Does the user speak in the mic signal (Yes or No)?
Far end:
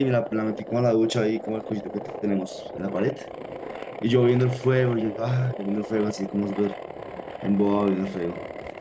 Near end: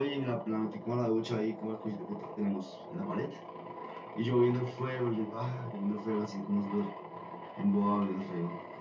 No